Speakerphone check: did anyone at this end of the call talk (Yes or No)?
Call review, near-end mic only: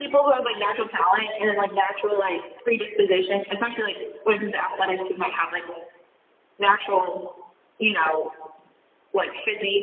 No